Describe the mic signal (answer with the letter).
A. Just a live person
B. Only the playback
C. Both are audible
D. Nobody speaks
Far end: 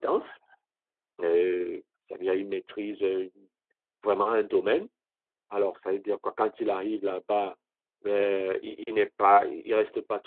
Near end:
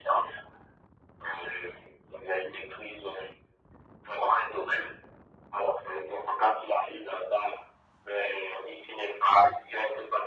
B